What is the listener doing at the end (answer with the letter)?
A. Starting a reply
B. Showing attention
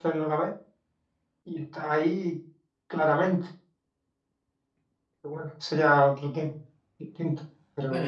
A